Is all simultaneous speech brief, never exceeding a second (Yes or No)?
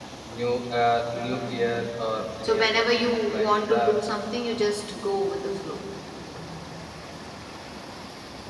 No